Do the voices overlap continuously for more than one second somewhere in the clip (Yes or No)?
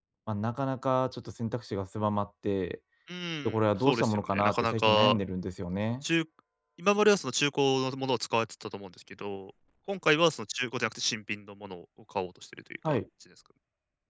Yes